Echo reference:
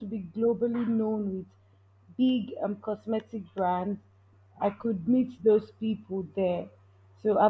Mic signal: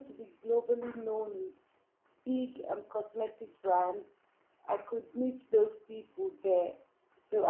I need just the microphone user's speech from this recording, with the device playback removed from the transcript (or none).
none